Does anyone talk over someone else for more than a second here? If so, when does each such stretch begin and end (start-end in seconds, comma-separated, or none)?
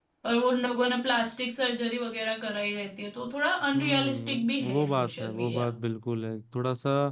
3.7-5.7